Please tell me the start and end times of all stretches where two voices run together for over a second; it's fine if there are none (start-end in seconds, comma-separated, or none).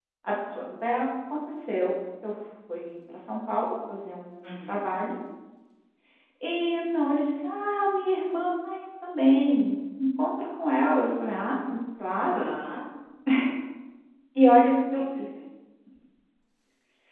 none